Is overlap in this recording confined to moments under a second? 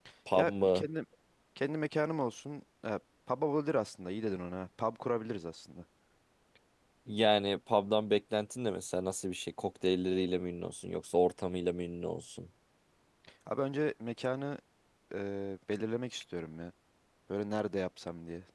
Yes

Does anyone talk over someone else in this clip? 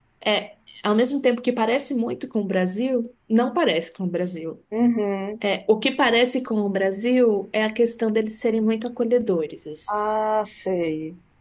No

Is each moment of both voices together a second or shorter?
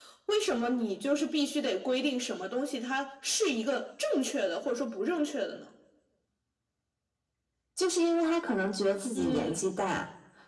Yes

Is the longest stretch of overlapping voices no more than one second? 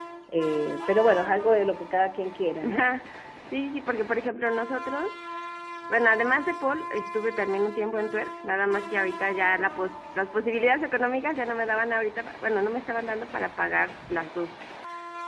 Yes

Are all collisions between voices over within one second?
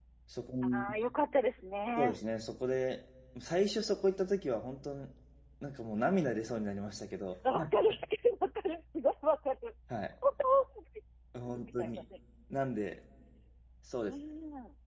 Yes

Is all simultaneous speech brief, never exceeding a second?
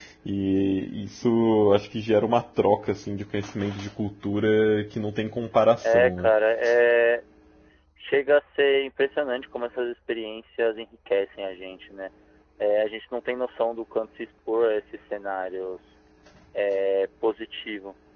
Yes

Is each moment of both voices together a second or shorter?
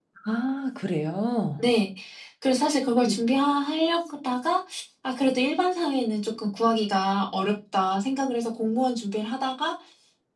Yes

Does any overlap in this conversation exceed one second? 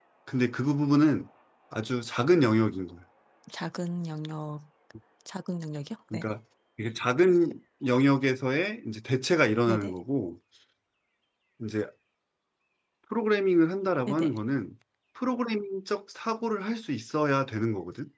No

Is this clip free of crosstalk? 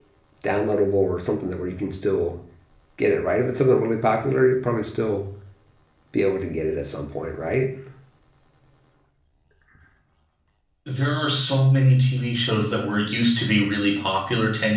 Yes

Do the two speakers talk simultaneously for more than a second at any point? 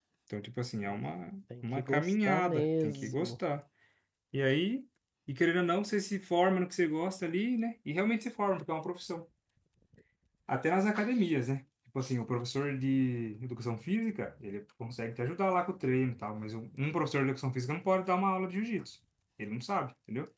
Yes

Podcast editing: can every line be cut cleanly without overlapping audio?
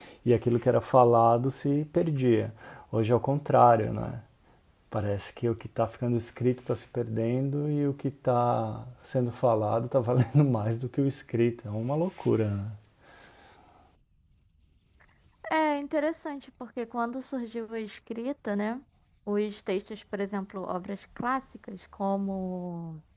Yes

